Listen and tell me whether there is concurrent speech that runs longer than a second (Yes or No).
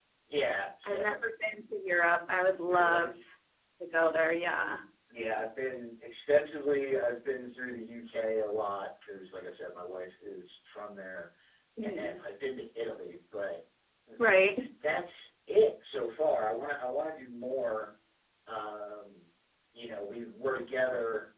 No